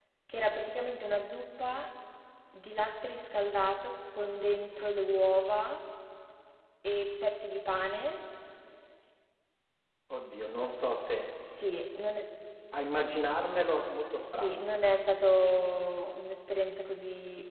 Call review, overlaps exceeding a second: none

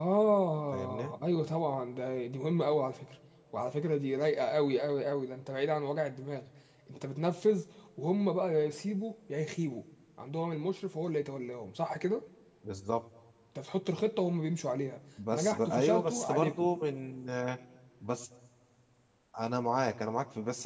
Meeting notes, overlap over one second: present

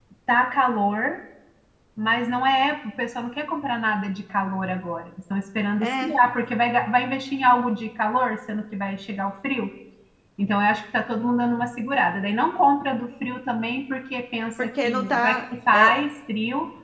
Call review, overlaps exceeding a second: present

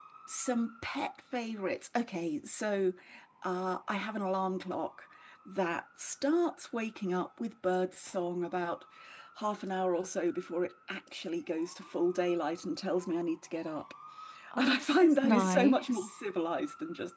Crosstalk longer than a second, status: present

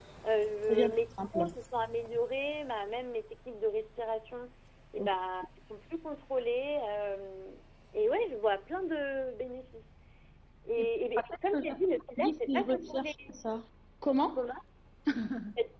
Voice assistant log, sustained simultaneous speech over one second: present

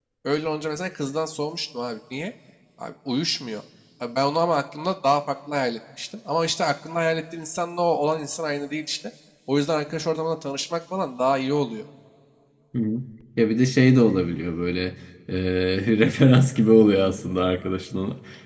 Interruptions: none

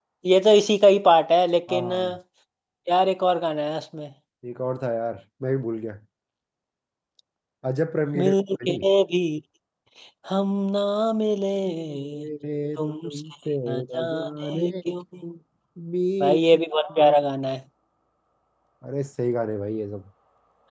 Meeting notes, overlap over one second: present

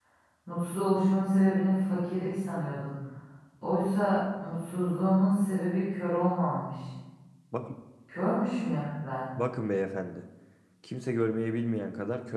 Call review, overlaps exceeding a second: none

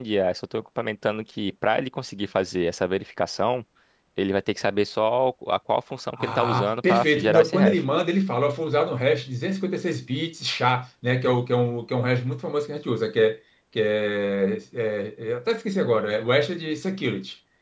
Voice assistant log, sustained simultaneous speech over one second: present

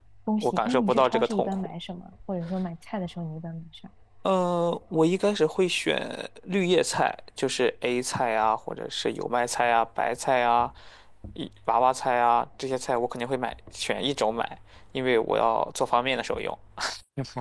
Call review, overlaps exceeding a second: present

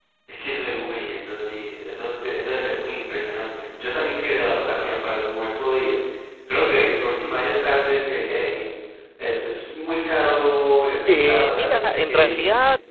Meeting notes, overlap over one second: present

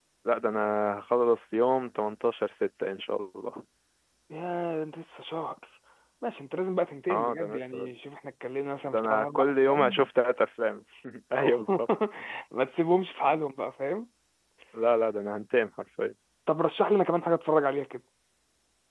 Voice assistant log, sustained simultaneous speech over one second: present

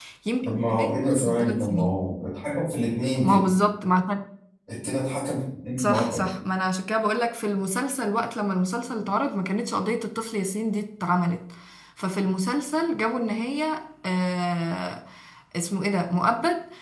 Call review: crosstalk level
present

